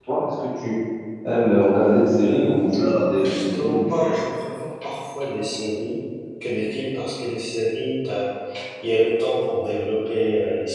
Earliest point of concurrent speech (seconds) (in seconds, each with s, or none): 2.2 s